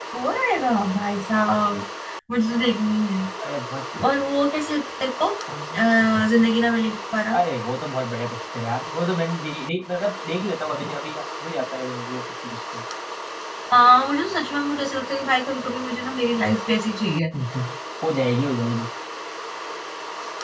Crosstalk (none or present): none